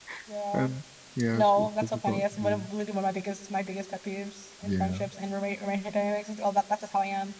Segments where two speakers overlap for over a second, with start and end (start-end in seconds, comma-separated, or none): 1.3-2.7